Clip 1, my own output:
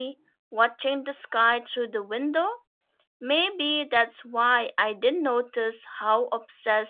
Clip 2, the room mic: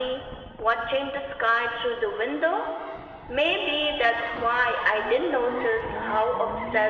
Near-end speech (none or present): none